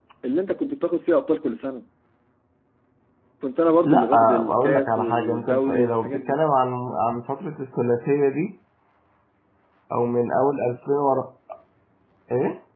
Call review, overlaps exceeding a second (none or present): present